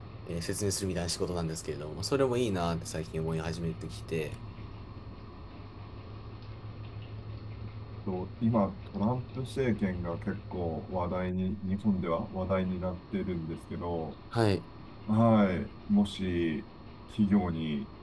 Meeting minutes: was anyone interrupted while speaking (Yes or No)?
No